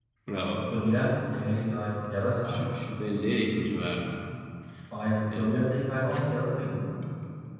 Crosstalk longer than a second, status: none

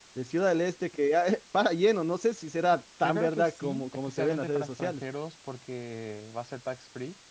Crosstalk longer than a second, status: present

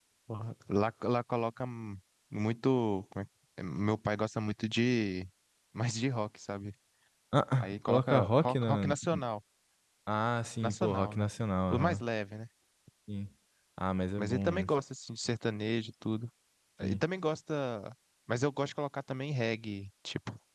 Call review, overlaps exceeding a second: present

